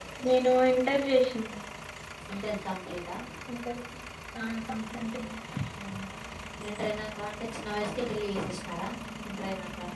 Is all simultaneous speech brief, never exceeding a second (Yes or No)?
Yes